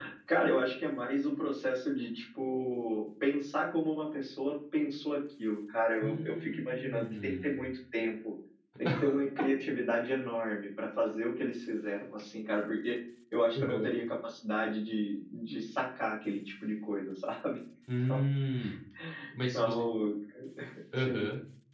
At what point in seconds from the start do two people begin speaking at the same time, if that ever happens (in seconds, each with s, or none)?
6.0 s